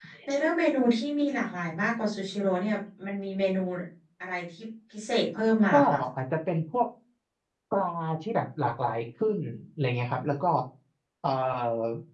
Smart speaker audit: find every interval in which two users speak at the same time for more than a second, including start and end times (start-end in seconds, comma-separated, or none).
none